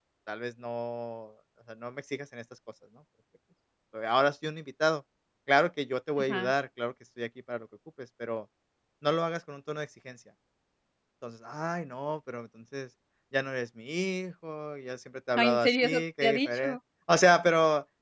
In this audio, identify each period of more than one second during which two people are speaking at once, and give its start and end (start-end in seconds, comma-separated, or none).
15.4-16.8